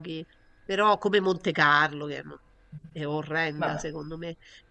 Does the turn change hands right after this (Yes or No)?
No